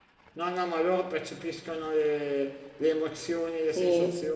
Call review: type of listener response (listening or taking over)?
listening